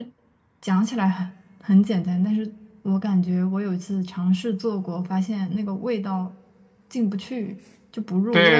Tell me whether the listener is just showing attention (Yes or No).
No